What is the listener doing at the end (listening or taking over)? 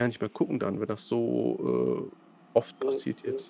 taking over